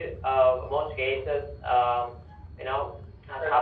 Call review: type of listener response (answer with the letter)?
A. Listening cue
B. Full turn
A